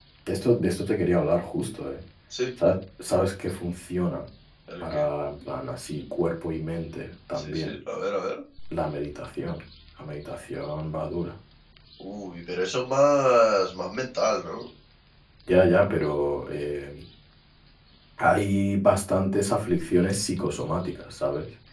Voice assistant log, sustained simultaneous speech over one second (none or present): none